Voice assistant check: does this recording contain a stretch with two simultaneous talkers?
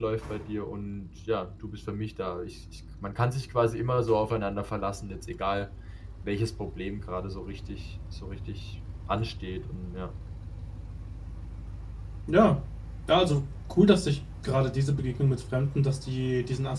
No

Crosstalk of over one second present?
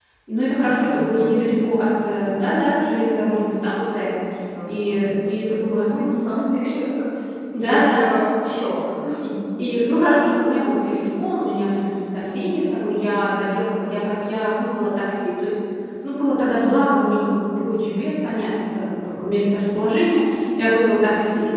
Yes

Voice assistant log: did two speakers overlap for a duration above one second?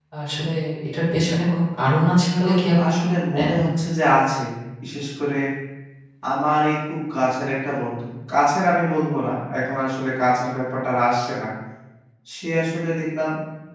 Yes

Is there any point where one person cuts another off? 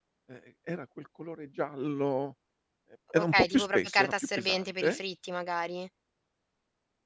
Yes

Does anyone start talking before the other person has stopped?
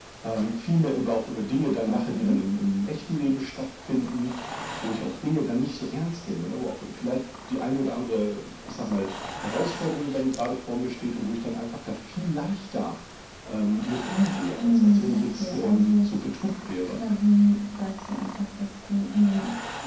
Yes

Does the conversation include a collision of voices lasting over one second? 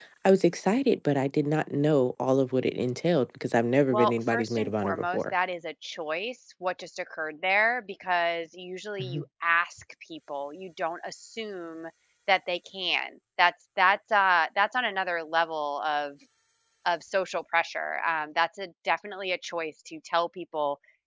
Yes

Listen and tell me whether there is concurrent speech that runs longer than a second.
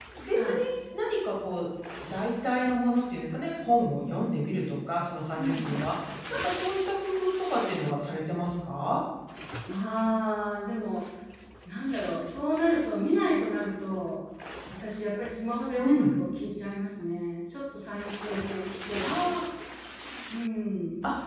No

